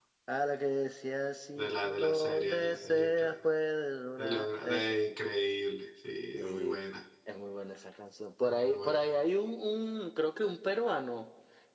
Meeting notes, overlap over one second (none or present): present